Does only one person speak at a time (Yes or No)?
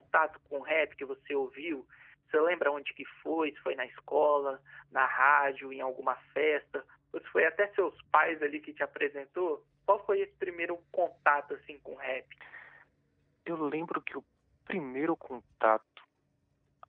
Yes